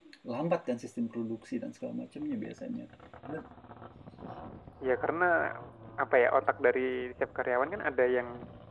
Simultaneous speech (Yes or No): No